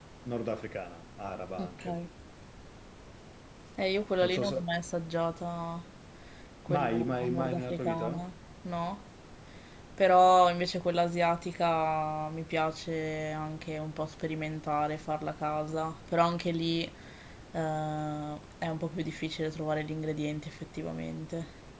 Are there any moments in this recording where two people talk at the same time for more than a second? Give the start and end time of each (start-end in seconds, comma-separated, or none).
6.8-8.3